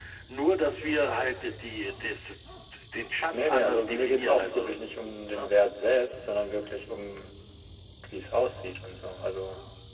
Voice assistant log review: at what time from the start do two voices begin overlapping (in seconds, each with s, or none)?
3.4 s